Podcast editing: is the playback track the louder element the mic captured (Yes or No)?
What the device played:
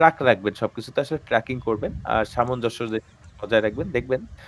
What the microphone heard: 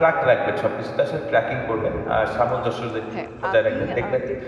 Yes